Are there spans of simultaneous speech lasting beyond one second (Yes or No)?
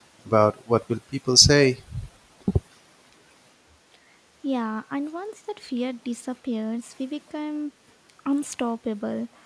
No